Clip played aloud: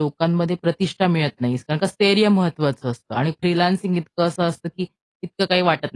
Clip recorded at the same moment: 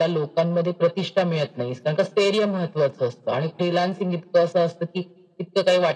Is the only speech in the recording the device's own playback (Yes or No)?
Yes